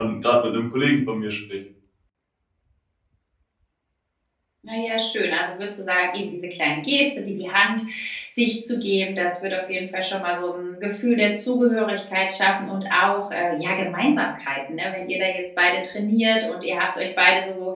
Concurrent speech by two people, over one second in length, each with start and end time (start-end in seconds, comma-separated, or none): none